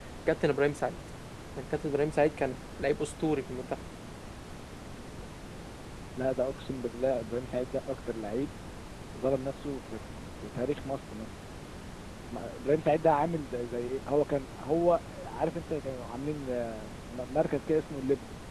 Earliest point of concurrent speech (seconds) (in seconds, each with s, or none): none